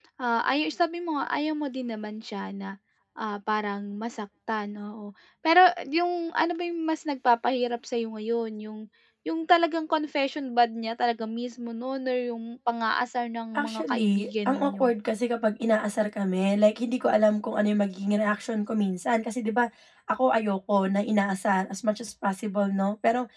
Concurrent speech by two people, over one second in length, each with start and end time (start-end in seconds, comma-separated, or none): 13.6-14.8